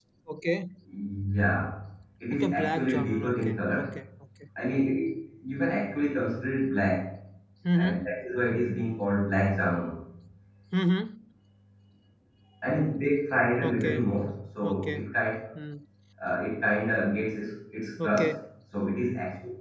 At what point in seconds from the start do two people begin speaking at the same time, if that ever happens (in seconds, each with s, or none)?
2.3 s